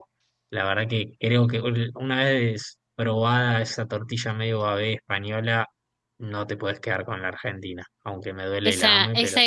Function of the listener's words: taking over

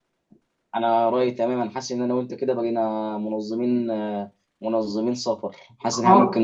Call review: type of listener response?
listening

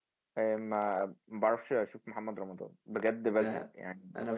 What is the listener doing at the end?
taking over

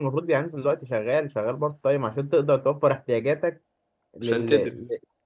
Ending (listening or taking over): listening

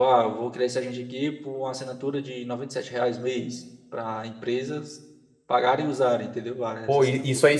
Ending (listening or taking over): taking over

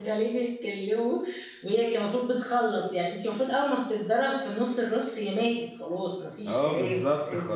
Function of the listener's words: taking over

